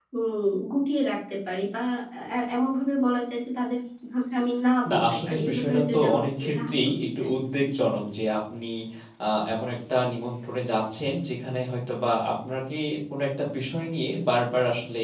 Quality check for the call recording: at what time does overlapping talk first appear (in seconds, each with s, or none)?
4.8 s